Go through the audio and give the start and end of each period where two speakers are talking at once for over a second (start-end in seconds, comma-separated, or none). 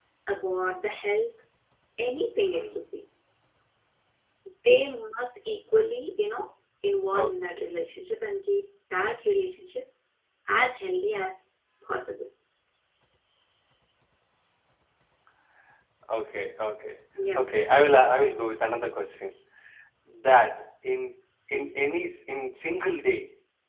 none